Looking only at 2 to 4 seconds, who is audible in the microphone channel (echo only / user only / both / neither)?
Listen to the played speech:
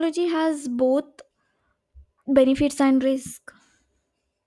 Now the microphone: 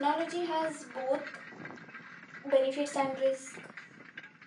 echo only